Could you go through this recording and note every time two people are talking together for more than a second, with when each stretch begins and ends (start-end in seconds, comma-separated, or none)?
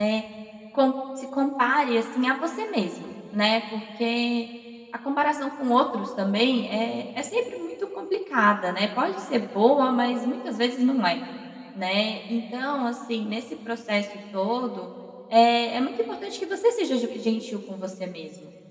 none